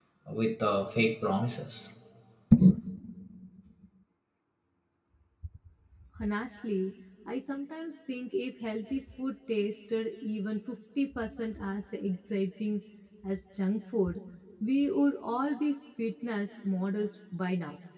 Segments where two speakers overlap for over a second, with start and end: none

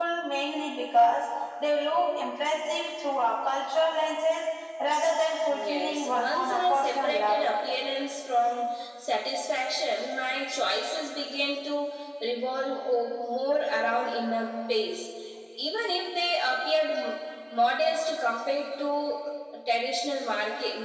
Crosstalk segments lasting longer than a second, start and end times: 5.6-7.5

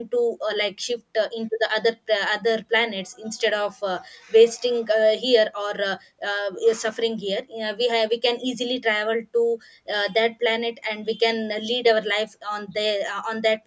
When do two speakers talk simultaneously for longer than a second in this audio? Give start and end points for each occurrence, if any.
none

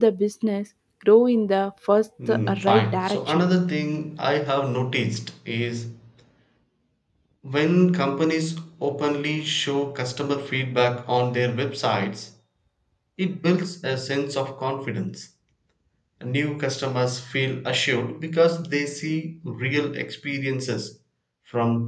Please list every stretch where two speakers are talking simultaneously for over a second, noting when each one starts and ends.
2.3-3.5

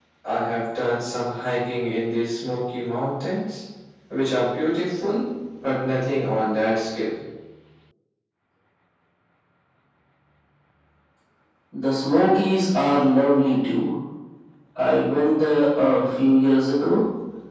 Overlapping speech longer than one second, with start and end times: none

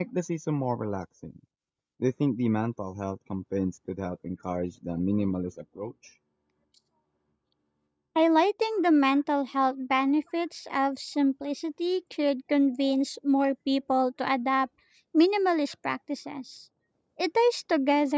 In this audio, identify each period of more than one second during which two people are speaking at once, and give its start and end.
none

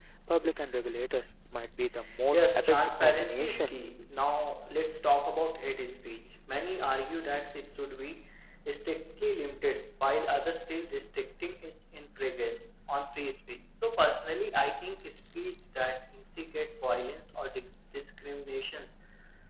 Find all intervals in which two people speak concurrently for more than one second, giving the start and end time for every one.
2.3-3.8

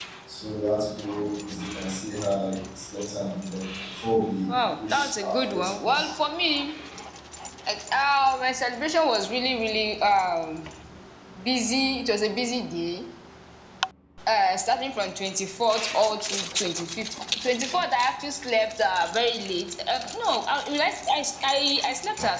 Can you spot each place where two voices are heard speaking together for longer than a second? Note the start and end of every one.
4.5-6.1

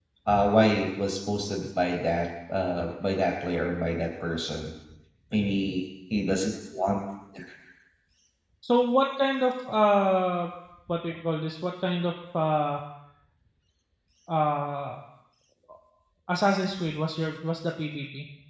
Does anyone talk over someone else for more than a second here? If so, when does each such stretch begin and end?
none

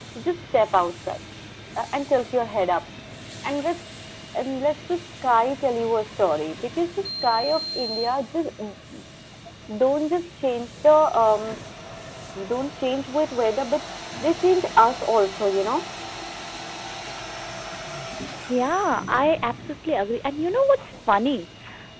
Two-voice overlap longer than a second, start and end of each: none

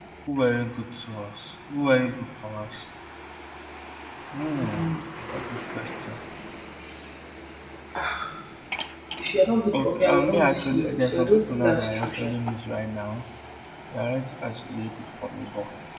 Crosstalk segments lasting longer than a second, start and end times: 9.7-12.3

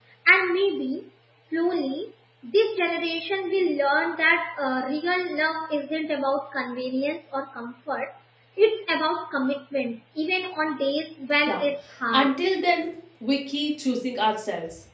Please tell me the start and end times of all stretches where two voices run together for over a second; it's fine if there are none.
none

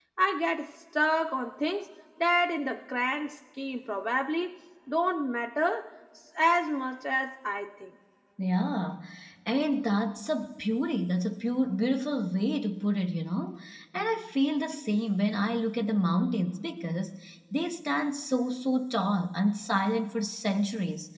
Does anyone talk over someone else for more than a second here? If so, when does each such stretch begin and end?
none

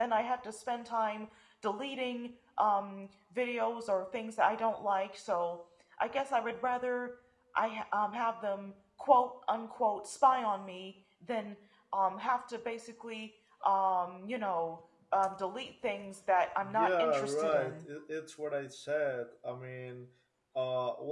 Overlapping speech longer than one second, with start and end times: 16.6-17.8

